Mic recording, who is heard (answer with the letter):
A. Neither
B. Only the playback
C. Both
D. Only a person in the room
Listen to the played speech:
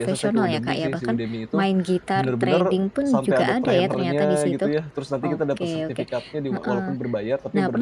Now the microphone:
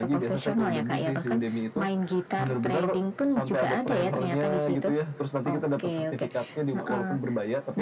B